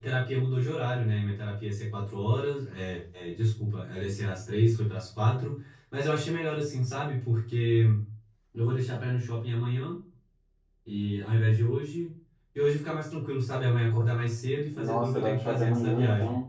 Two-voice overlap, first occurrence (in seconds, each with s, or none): 14.7 s